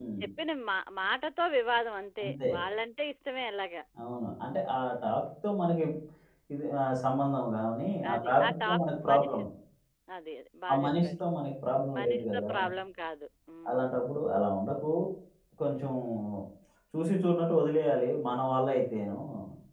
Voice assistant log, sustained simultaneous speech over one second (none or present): present